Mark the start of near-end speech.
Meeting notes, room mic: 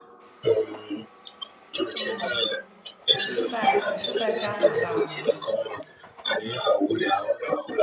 2 s

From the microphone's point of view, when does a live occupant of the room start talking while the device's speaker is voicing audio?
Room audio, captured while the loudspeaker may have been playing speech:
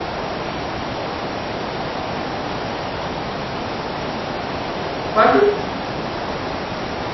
5 s

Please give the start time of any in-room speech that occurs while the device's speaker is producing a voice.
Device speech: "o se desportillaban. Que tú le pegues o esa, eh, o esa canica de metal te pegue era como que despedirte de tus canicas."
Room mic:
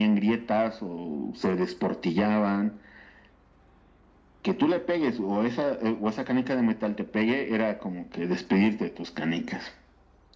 none

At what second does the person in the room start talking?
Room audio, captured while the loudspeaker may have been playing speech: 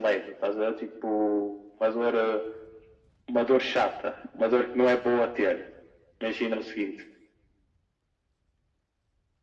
none

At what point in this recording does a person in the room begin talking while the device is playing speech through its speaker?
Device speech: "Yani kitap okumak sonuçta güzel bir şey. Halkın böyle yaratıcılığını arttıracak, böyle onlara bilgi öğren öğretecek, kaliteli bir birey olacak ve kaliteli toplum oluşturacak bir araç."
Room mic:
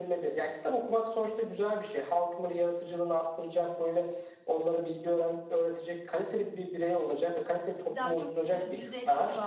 8 s

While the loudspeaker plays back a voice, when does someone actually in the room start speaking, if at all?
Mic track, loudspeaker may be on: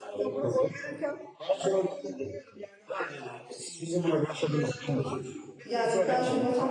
6 s

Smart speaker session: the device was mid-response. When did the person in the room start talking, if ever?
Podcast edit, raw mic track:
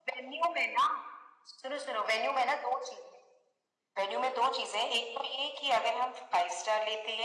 none

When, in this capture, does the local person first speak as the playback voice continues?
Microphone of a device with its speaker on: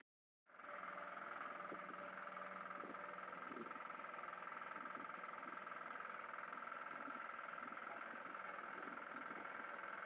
none

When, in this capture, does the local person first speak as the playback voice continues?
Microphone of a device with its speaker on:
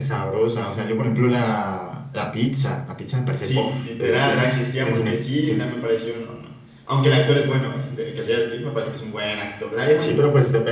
3 s

